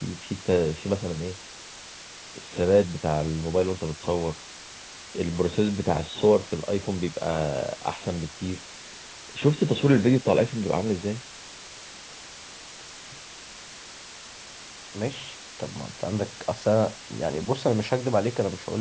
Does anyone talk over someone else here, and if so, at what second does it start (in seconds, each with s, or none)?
none